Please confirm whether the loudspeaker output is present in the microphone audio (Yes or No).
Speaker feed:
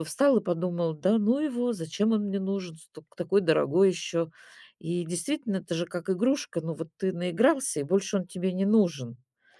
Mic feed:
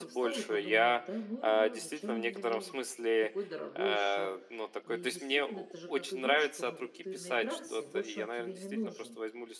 Yes